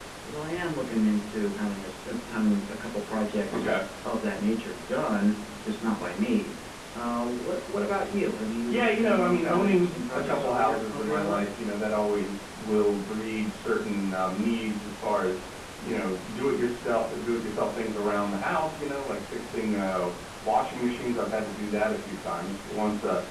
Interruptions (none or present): present